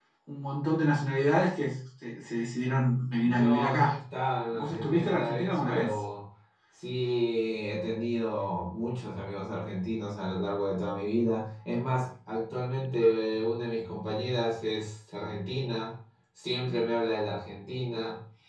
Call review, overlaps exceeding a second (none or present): present